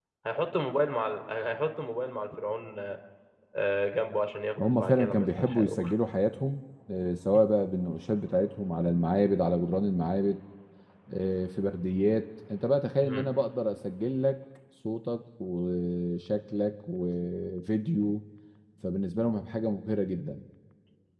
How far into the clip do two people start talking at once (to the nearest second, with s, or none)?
5 s